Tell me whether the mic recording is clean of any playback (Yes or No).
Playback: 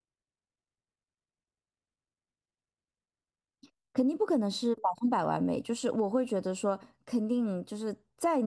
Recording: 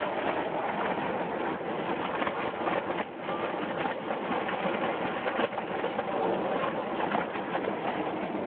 Yes